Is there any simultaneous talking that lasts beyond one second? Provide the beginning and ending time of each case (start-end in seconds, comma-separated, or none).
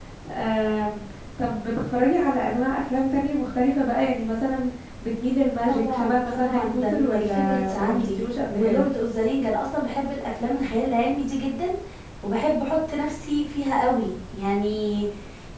5.7-8.9